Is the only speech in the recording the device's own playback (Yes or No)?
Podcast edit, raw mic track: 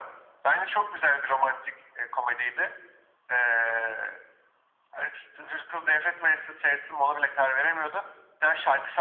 Yes